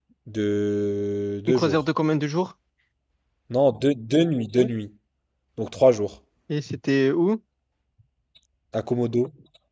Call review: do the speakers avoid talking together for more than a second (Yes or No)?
Yes